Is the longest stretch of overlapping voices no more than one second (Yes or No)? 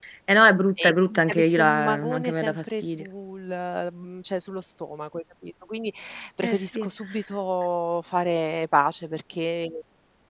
No